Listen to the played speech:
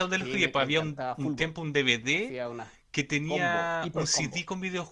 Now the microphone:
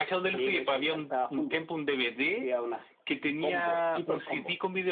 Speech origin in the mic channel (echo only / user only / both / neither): echo only